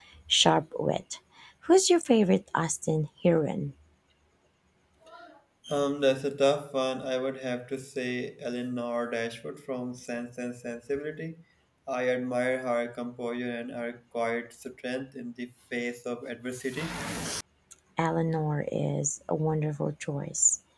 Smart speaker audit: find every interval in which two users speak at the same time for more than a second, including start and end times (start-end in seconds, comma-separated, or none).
none